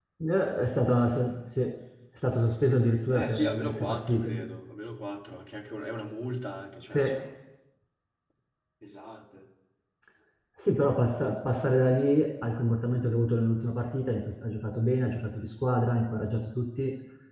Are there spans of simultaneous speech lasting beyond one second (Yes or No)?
Yes